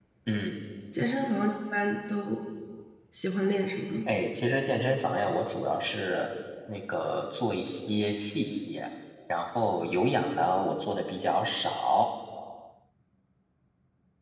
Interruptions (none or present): none